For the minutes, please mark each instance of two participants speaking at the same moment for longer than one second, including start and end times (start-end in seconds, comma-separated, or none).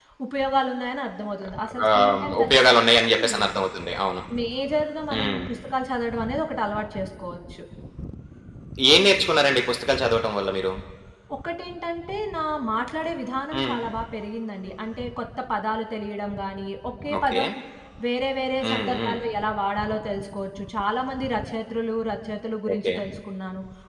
1.9-3.2